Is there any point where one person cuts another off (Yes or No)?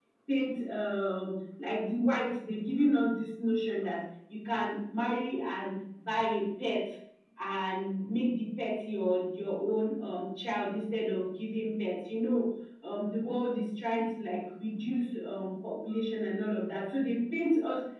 No